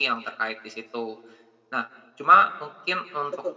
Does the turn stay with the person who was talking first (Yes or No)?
Yes